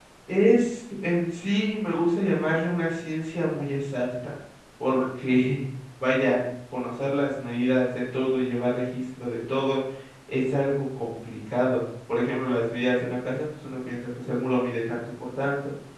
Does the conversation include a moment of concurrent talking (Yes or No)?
No